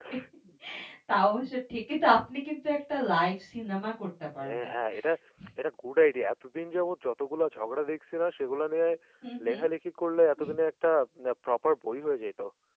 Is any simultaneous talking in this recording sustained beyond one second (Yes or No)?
No